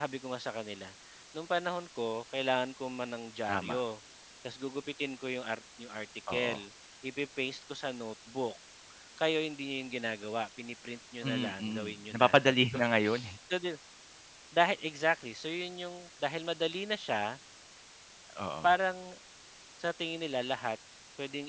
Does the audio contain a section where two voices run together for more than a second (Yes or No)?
Yes